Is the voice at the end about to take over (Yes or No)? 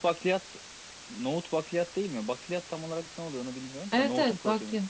Yes